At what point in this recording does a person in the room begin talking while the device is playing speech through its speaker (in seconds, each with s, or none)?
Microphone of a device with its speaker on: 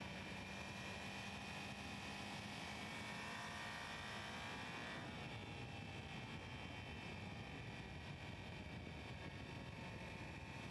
none